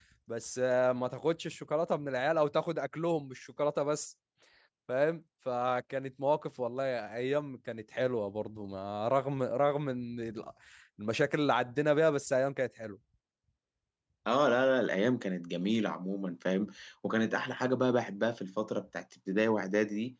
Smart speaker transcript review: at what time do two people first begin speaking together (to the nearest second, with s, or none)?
none